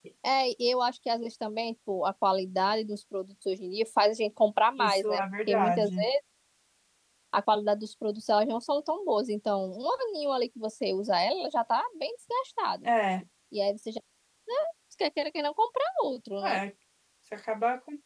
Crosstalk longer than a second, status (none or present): present